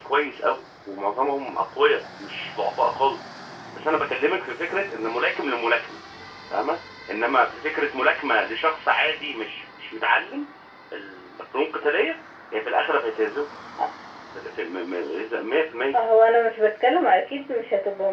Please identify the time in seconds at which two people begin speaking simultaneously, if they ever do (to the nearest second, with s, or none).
none